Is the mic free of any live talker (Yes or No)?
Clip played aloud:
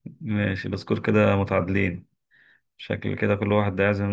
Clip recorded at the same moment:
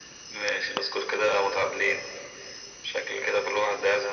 Yes